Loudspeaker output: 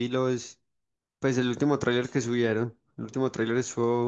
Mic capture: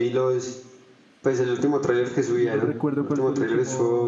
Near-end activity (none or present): present